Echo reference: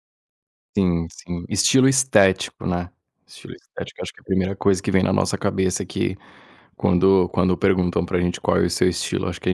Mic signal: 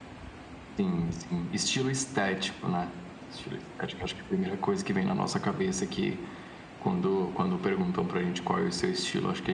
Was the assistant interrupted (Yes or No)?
No